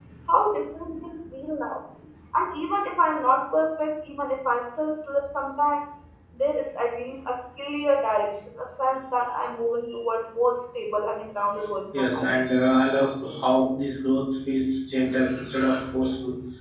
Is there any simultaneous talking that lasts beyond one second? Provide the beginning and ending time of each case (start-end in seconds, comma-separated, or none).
none